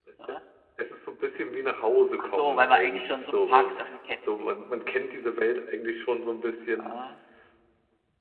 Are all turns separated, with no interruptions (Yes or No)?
No